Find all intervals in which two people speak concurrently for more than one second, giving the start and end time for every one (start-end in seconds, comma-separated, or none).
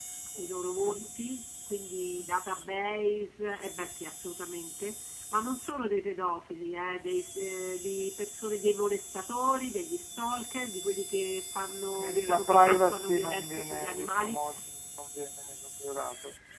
11.9-14.4